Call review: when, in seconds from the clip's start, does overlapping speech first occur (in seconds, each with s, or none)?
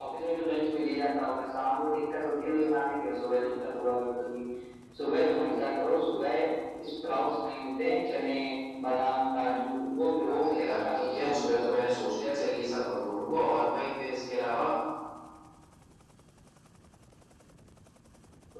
10.2 s